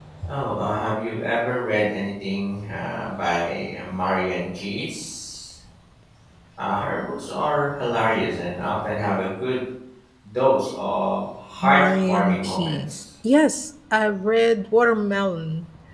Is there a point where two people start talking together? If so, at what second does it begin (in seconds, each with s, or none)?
11.6 s